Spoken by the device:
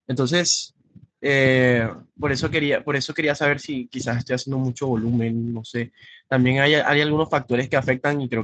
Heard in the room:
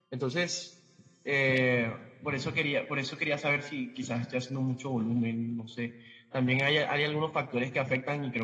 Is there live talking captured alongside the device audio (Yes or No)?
No